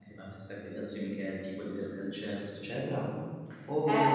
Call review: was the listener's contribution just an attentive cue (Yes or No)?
No